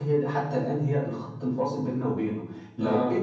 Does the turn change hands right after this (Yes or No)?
No